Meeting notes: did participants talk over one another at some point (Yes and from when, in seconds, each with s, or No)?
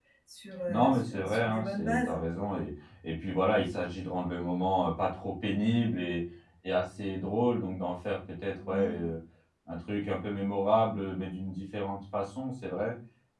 Yes, from 0.7 s